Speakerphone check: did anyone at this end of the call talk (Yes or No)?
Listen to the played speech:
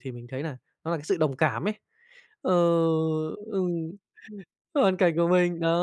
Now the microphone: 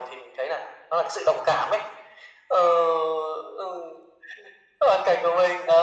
No